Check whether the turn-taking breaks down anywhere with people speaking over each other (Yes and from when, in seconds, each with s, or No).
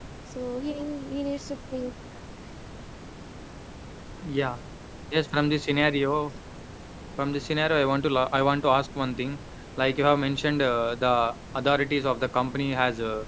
No